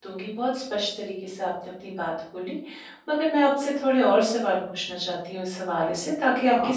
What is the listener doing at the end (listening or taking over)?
listening